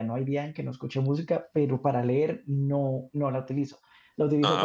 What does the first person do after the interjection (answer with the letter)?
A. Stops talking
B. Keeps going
B